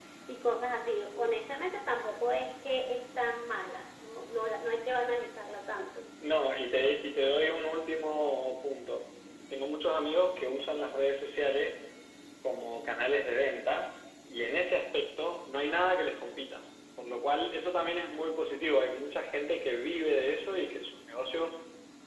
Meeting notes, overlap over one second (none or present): none